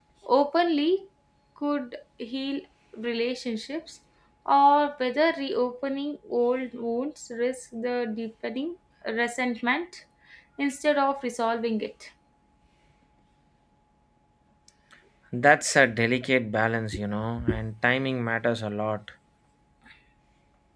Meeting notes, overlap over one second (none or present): none